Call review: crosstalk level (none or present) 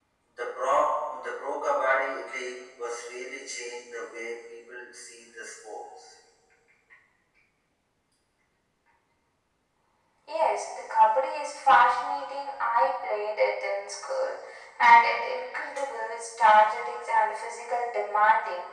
none